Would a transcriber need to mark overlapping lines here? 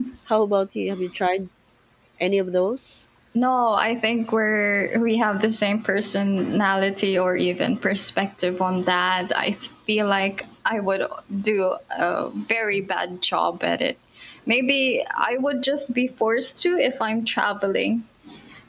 No

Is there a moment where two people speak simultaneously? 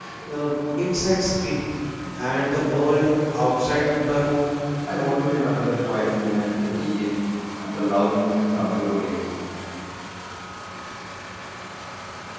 No

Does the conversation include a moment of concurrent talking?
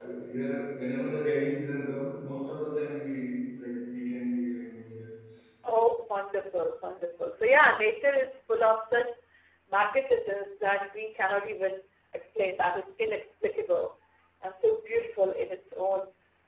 No

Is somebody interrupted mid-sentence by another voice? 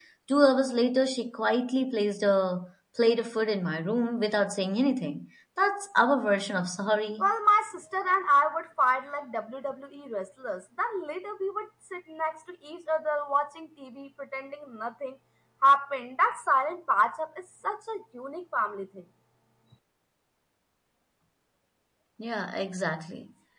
No

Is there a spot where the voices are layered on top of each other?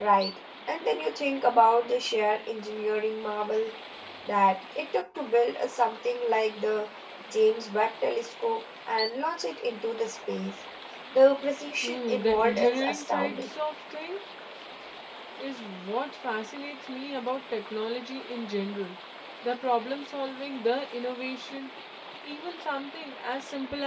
Yes, from 11.8 s

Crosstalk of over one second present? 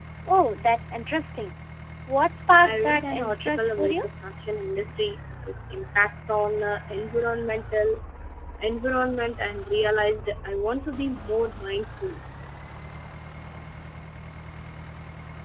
Yes, from 2.6 s

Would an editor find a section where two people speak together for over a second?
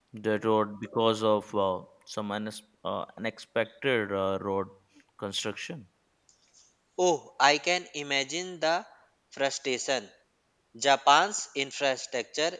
No

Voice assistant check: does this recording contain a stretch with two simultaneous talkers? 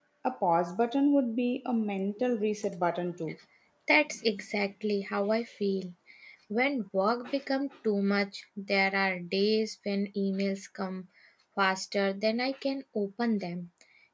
No

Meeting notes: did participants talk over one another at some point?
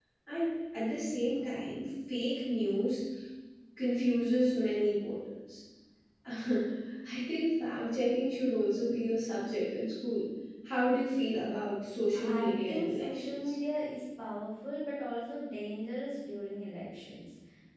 Yes, from 12.1 s

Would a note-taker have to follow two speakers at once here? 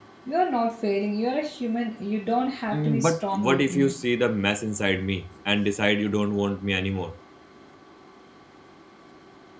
Yes, from 2.7 s

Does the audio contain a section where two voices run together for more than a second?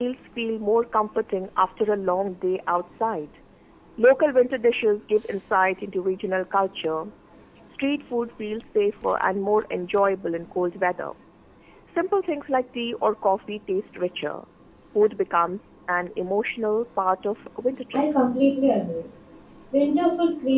No

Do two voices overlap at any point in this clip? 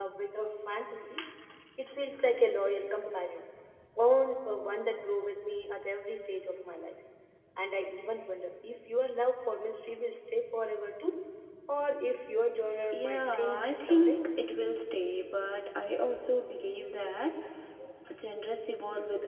Yes, from 12.9 s

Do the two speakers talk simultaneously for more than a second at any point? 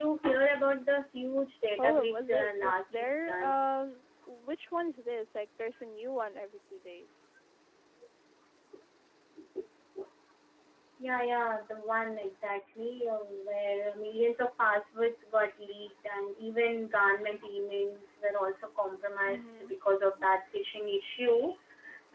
Yes, from 1.8 s

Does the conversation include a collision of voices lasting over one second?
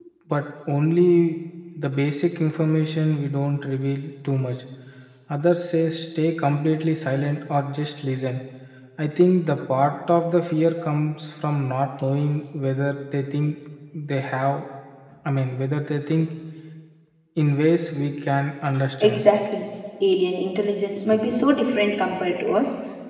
No

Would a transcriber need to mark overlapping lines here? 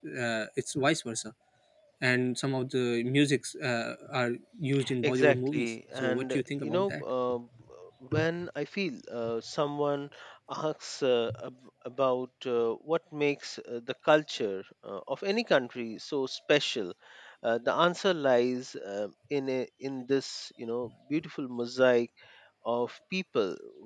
Yes, from 5.0 s

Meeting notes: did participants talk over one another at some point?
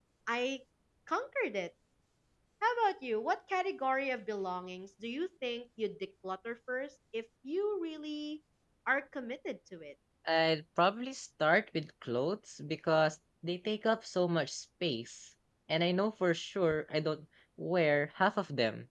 No

